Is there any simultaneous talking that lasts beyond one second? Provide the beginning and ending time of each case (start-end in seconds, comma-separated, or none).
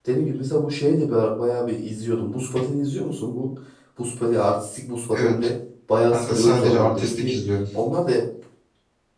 6.1-7.4